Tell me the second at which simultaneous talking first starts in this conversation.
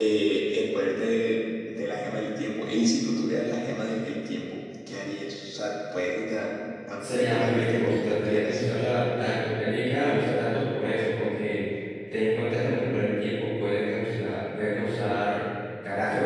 7.0 s

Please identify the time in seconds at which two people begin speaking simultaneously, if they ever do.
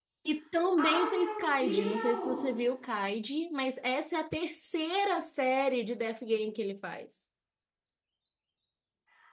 0.8 s

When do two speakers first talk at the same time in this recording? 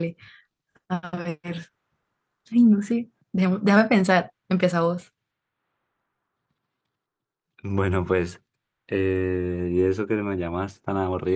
none

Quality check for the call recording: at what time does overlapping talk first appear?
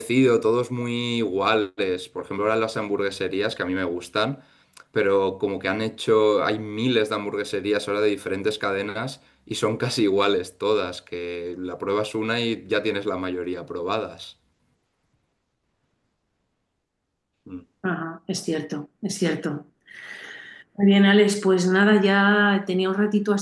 none

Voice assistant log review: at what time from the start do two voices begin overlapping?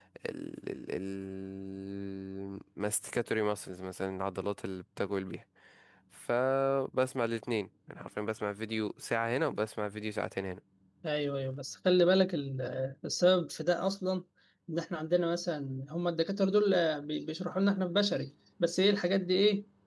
none

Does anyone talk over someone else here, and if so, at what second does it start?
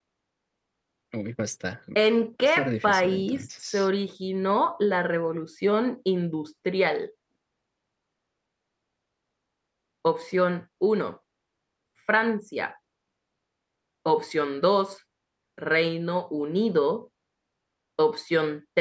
2.5 s

